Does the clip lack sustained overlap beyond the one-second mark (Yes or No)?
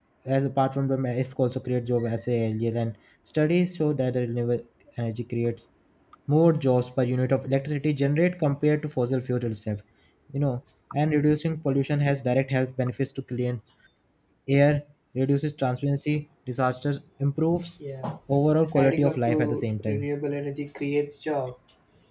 No